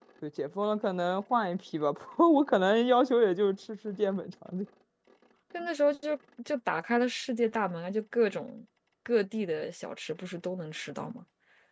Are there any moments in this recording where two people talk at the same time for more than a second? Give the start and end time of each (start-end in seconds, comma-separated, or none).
none